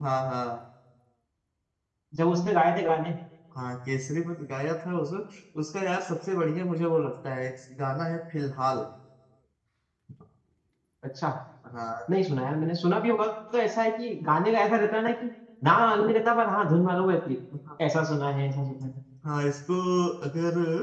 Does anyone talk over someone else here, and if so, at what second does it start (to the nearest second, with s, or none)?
none